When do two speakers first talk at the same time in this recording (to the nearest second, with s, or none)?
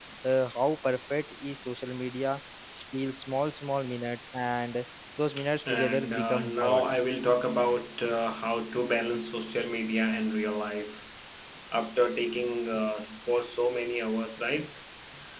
6 s